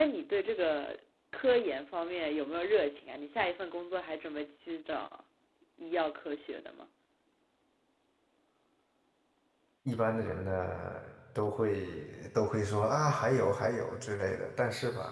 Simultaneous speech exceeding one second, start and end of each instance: none

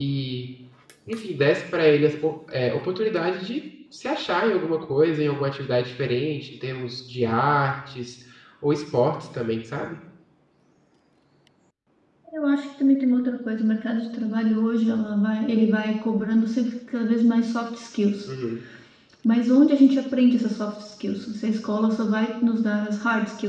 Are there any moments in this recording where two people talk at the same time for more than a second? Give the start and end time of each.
none

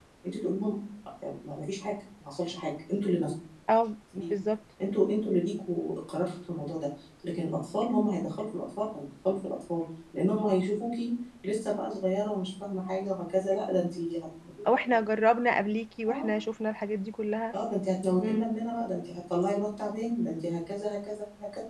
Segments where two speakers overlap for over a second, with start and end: none

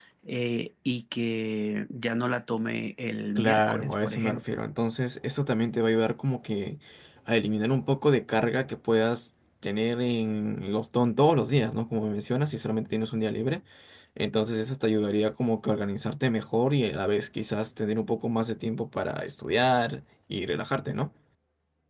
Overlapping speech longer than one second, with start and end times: 3.4-4.6

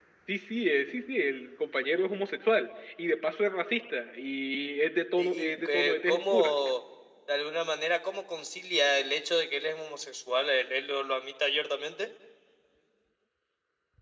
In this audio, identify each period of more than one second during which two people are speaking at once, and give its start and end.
5.2-6.5

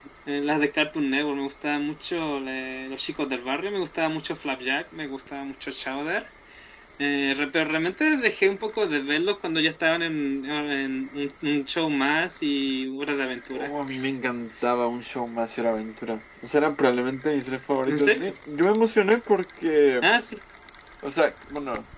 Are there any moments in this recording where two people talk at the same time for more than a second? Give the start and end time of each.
none

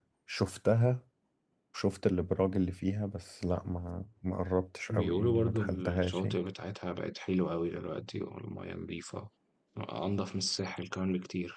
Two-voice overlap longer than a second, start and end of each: 4.9-6.3

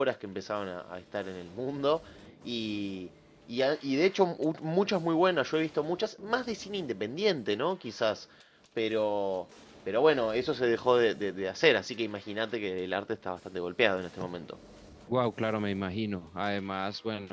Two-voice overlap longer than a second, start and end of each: none

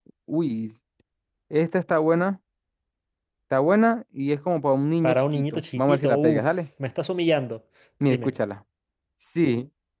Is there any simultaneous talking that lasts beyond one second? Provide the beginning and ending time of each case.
5.0-6.5

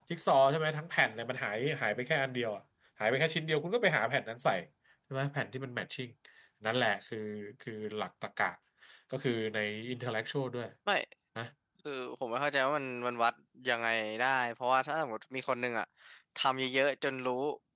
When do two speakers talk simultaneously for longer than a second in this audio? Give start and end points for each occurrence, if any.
none

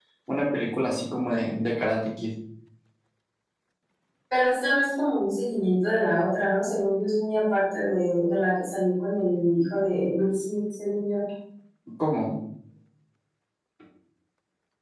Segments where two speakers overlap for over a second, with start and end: none

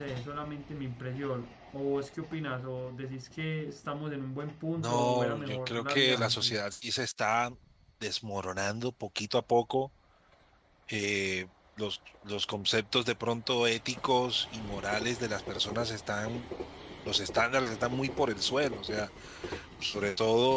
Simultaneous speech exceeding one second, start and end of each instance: 4.8-6.6

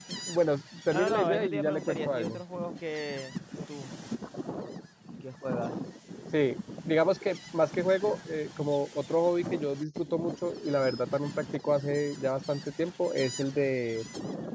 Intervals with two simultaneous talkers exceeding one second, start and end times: 0.9-2.4

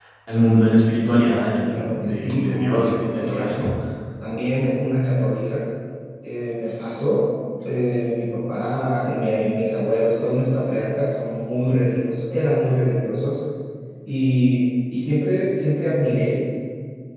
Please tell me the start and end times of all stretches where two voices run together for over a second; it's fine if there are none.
1.6-3.7

